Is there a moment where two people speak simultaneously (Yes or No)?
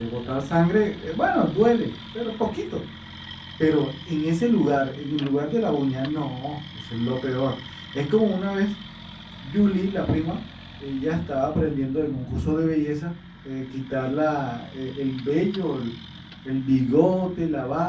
No